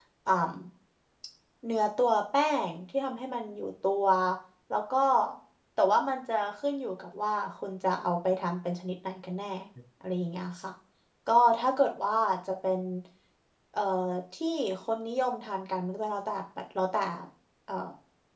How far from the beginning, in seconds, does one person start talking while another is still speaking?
none

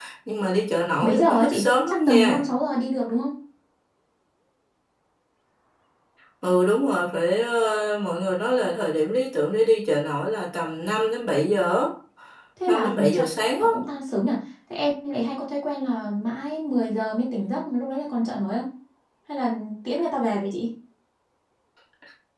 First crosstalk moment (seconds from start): 1.0 s

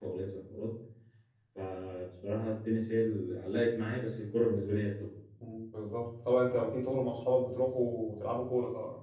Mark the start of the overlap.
none

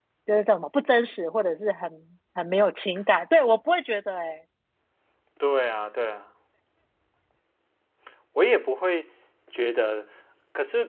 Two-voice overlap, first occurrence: none

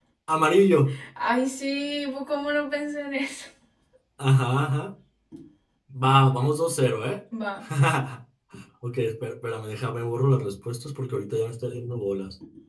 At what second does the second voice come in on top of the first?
none

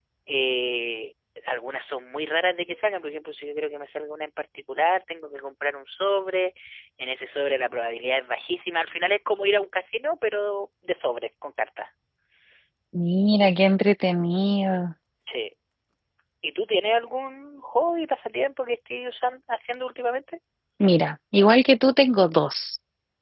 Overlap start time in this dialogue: none

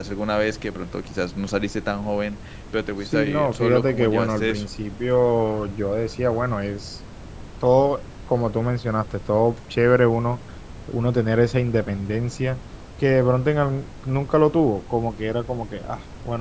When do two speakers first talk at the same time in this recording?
3.0 s

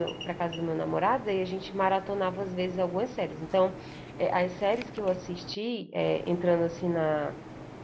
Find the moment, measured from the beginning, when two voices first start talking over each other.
none

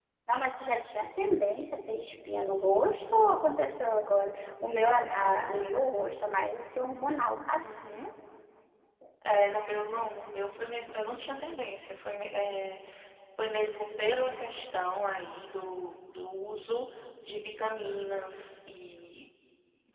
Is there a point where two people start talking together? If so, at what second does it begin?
none

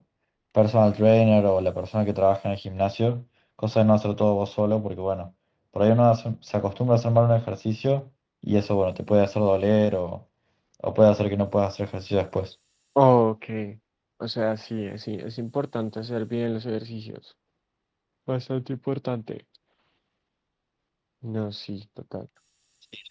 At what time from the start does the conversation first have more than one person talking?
none

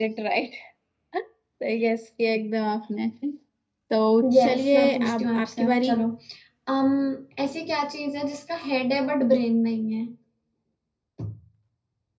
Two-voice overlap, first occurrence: 4.3 s

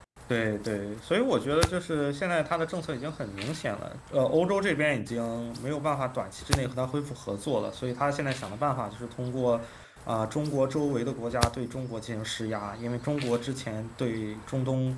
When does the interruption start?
none

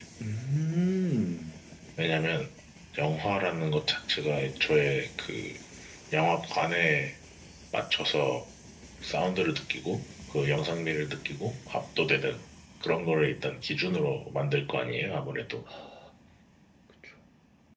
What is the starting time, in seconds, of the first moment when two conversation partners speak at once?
none

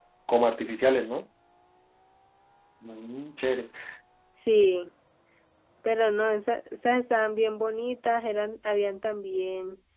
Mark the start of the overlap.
none

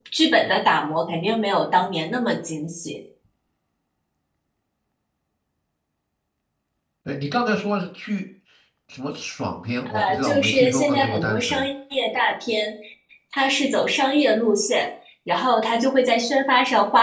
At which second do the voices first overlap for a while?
9.9 s

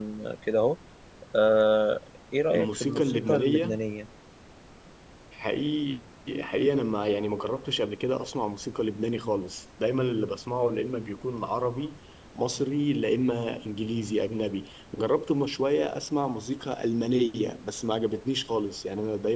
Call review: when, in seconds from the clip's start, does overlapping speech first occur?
2.5 s

